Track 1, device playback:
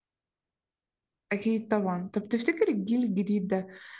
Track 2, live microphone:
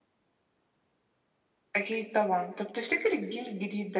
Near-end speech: none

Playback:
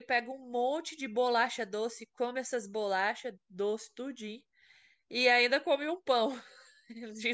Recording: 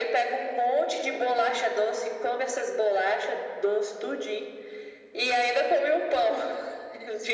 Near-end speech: none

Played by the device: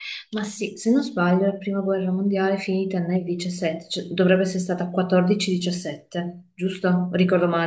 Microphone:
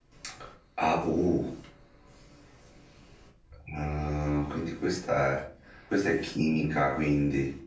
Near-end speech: present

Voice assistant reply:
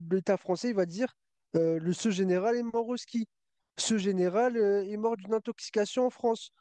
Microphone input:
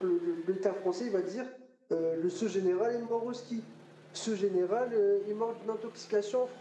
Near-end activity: none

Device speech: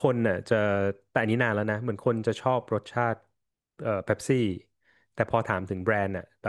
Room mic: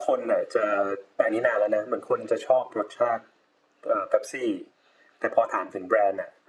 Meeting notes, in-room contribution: none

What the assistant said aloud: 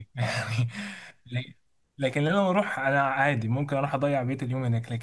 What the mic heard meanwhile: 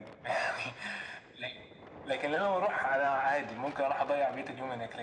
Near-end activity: none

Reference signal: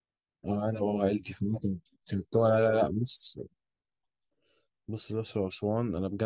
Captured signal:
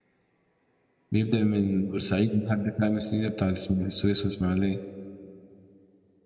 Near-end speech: present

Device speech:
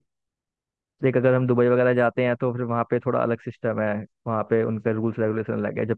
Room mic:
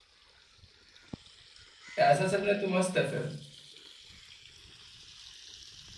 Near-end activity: present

